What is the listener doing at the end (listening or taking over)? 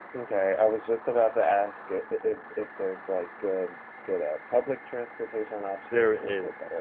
taking over